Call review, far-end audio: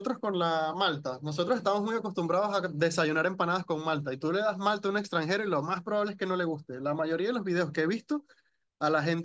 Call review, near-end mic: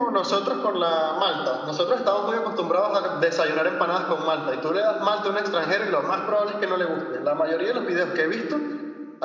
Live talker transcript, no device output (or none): none